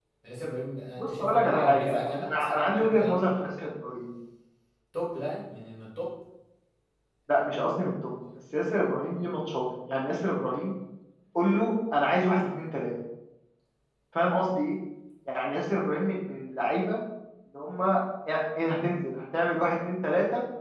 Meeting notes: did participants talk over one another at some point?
Yes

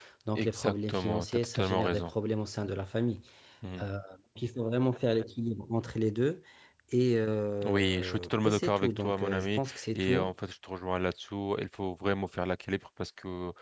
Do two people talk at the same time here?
Yes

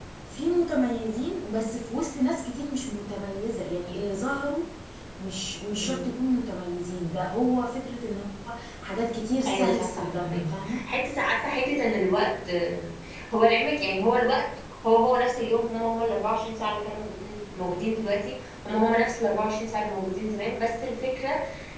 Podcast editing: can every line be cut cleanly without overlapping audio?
No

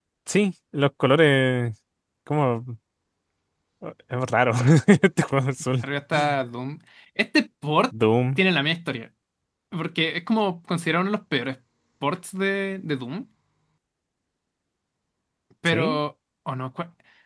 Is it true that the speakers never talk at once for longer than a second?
Yes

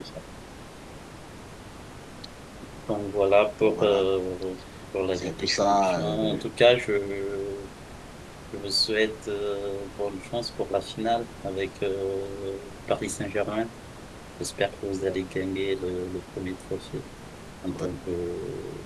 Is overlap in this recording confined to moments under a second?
No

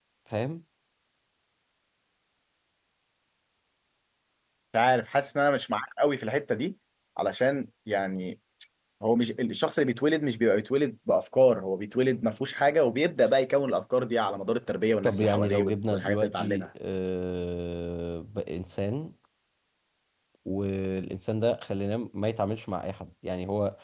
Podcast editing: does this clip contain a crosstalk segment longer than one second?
Yes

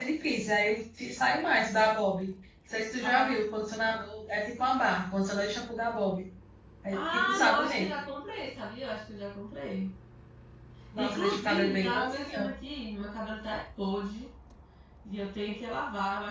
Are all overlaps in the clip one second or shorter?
No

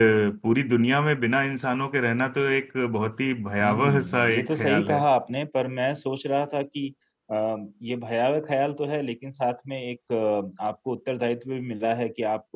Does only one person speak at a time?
No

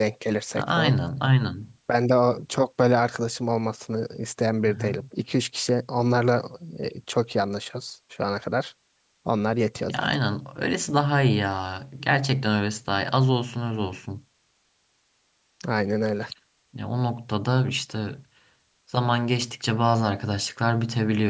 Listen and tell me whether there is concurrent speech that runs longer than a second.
No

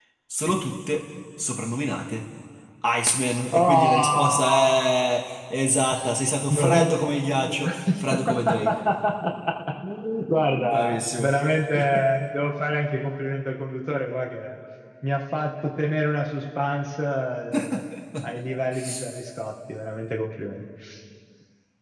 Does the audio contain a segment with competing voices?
Yes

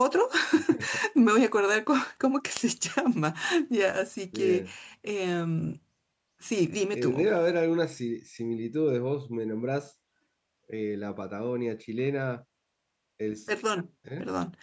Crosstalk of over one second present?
No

